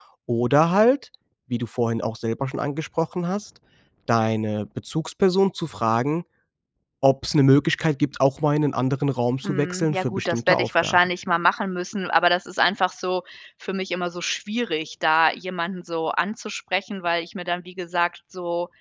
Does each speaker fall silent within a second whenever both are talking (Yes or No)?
No